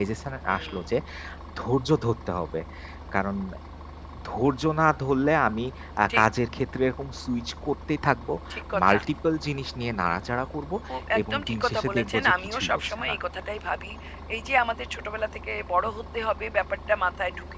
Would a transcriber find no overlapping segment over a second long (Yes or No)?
No